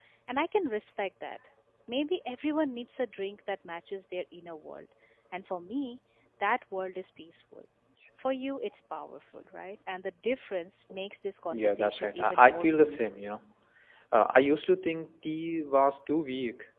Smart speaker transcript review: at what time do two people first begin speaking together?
11.5 s

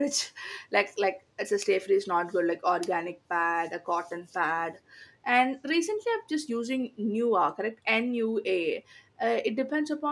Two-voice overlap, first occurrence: none

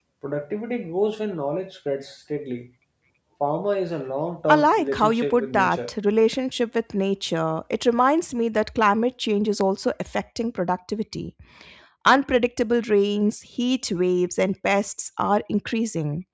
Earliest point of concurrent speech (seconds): 4.5 s

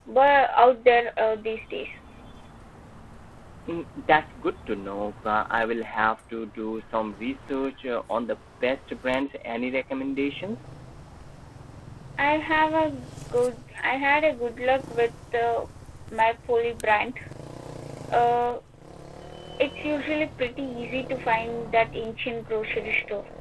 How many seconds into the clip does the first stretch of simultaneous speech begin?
none

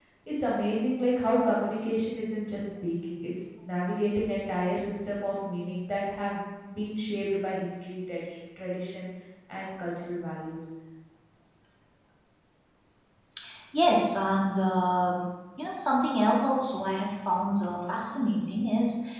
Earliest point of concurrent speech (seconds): none

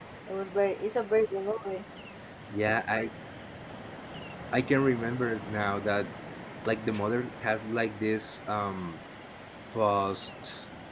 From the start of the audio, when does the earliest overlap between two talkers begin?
none

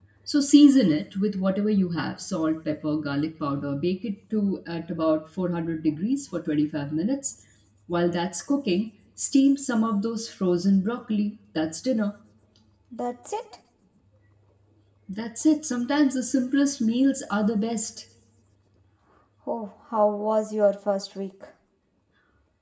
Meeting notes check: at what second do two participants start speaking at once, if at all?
none

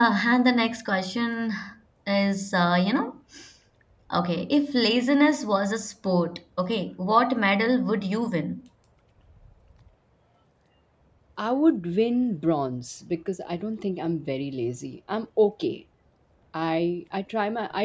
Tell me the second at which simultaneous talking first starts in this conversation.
none

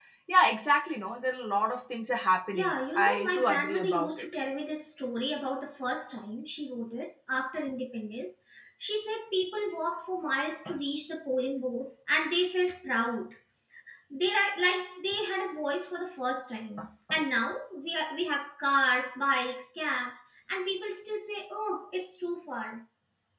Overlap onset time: 2.5 s

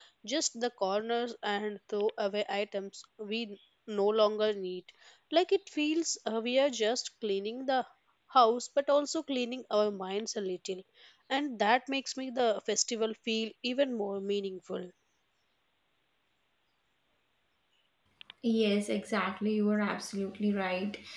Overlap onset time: none

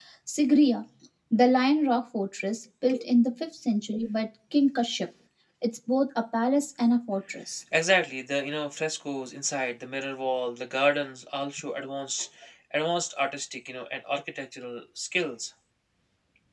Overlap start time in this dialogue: none

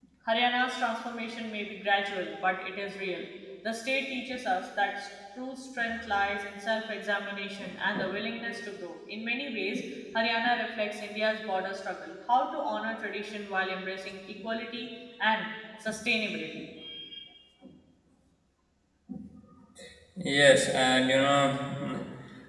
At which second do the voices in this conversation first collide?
none

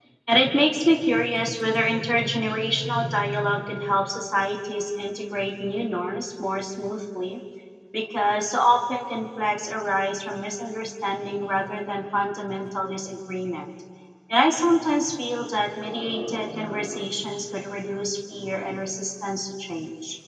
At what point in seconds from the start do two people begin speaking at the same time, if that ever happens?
none

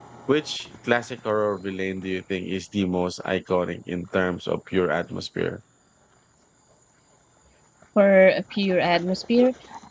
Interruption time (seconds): none

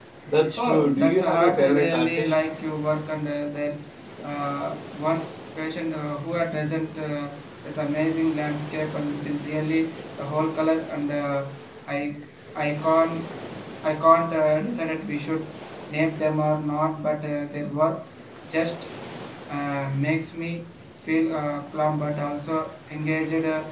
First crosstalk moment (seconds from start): 0.6 s

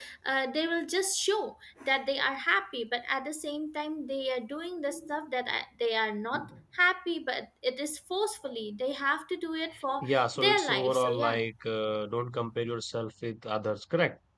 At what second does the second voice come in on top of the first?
10.0 s

